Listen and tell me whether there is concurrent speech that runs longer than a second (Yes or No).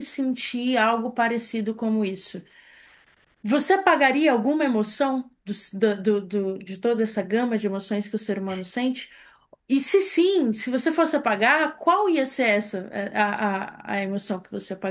No